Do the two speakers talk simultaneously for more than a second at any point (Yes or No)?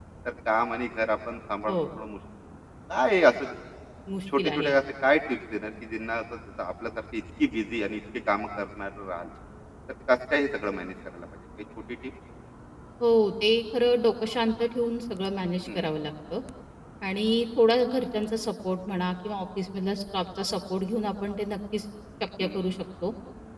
No